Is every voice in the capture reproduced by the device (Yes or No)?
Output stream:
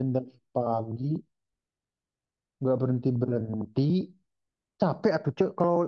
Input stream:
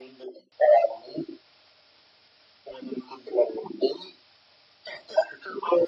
Yes